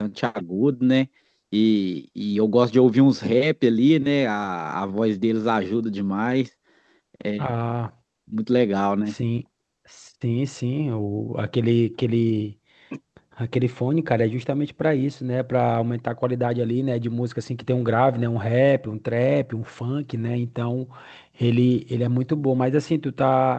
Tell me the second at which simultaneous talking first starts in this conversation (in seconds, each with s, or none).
none